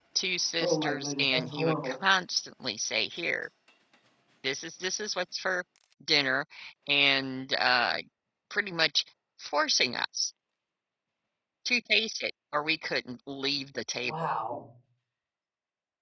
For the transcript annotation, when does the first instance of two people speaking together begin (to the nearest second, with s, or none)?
1 s